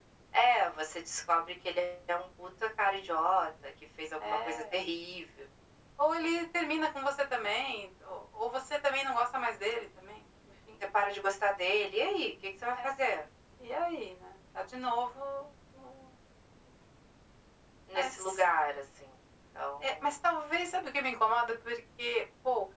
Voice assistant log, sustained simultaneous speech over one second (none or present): none